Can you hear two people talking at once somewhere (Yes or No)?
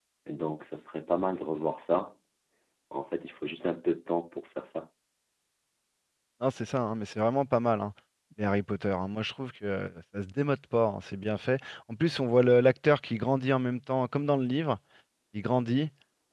No